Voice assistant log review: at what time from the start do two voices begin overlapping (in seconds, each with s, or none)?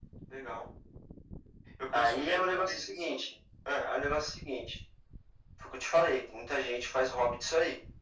1.9 s